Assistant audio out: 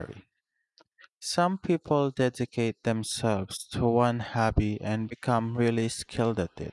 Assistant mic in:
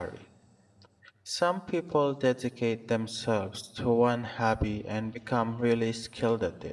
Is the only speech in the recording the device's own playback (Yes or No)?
Yes